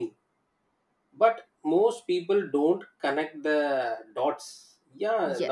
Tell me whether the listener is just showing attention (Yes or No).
Yes